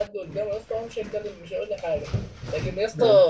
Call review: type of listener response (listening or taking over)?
listening